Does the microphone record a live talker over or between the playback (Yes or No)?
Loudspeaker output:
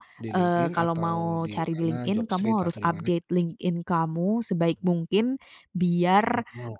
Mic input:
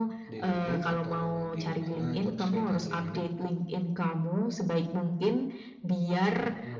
No